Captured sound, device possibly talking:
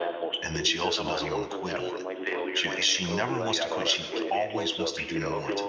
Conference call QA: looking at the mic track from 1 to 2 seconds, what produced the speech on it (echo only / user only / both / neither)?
both